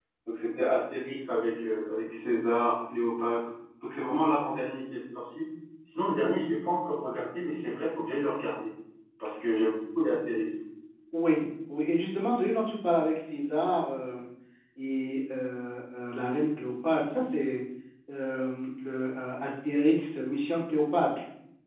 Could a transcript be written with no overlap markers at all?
Yes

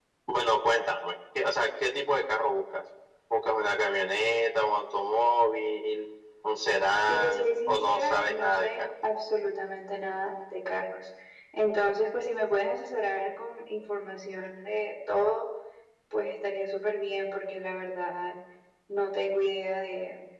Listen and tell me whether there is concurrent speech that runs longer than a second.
Yes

